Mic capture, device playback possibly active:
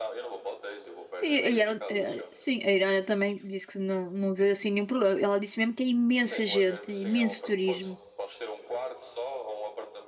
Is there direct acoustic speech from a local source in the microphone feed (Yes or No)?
Yes